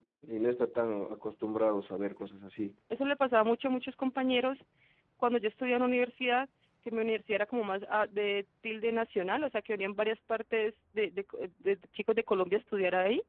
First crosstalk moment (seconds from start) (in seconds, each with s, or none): none